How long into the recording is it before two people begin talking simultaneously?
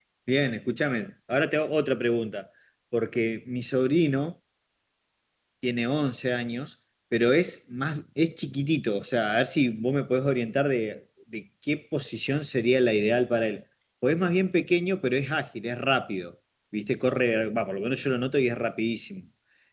none

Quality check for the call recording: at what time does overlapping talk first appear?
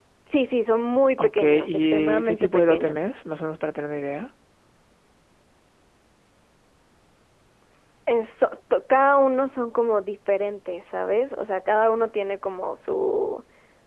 1.2 s

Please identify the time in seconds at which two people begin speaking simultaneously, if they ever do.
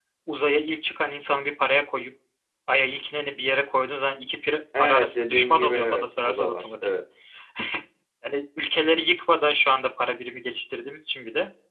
4.7 s

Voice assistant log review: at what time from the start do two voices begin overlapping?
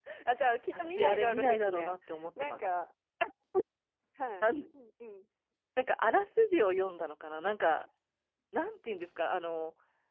0.7 s

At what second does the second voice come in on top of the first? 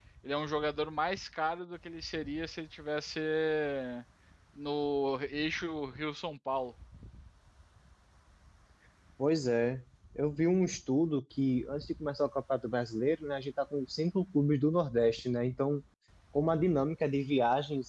none

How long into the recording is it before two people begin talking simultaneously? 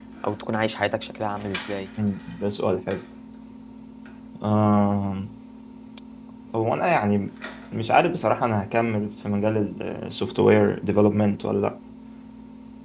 none

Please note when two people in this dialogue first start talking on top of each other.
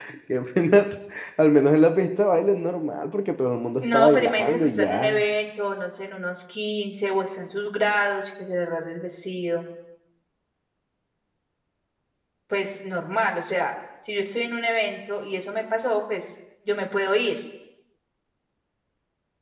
3.8 s

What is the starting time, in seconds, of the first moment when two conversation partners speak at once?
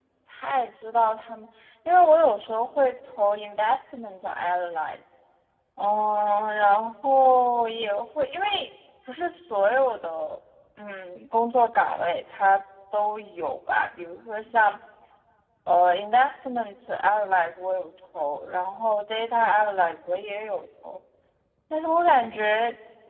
none

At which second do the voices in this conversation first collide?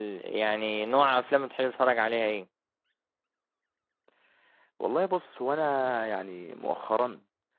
none

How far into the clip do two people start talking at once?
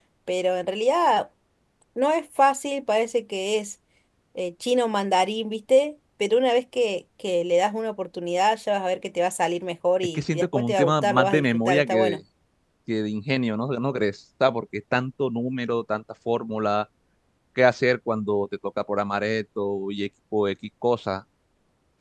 10.1 s

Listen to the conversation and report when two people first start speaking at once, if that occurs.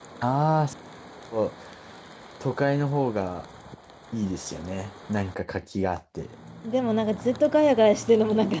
none

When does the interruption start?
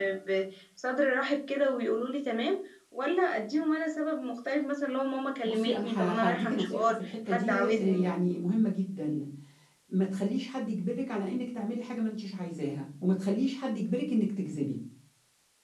5.5 s

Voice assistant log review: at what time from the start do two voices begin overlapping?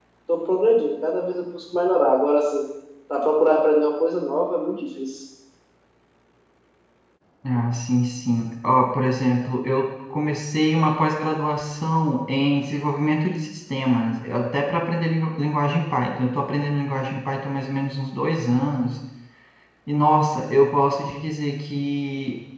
none

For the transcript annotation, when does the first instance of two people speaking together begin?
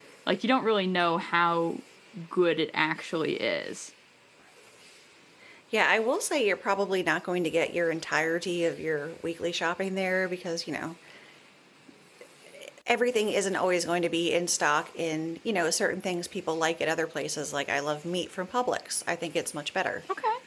none

